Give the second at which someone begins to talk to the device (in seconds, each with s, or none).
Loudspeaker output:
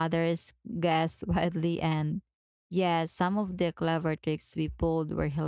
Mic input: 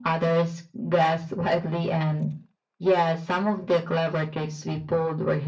none